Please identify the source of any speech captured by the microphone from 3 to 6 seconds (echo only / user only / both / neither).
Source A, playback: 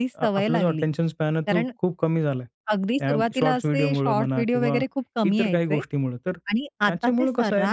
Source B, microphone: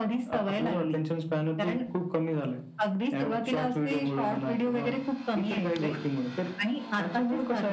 echo only